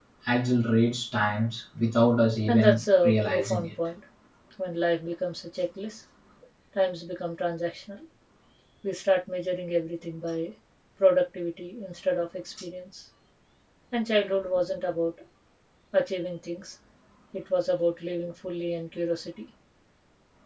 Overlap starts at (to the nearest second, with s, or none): 2 s